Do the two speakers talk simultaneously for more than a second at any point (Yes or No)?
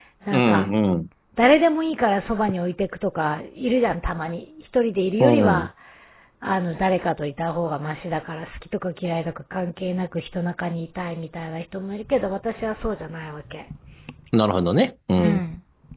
No